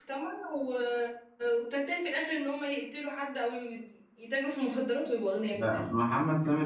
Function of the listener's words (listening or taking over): taking over